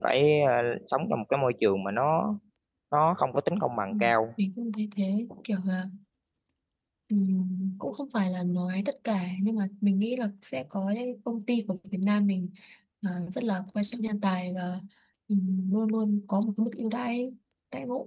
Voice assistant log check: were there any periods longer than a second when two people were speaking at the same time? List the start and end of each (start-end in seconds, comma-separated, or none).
none